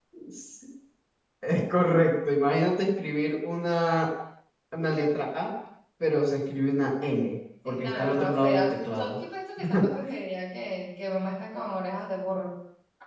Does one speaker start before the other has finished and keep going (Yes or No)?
Yes